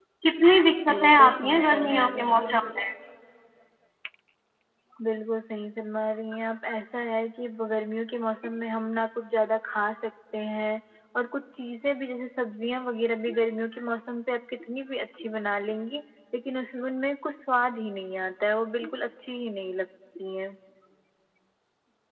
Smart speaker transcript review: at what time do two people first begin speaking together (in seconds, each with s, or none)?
0.9 s